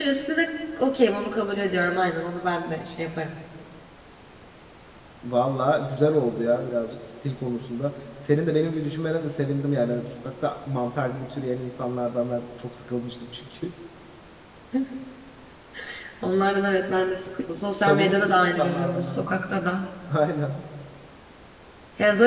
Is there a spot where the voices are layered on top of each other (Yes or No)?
Yes